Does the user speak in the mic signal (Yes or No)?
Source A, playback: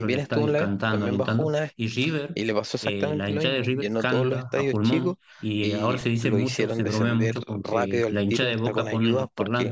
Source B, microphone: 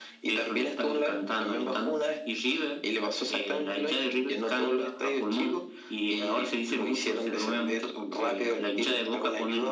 No